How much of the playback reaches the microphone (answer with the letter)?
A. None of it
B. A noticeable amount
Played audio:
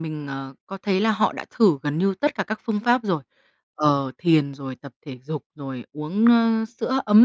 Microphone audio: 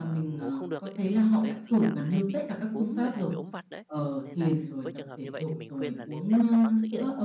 B